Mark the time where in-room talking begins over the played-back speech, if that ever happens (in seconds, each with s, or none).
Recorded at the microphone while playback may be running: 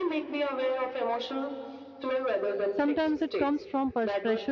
2.7 s